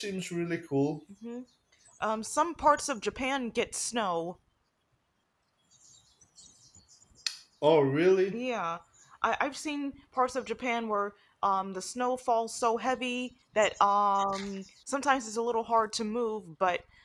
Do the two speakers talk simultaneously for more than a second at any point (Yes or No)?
No